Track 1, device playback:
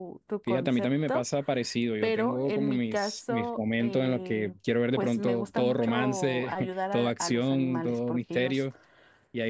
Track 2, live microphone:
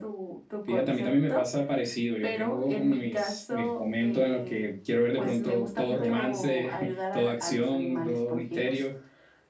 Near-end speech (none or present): none